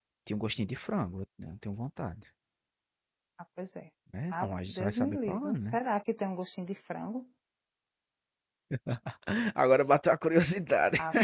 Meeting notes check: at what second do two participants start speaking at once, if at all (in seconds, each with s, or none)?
4.3 s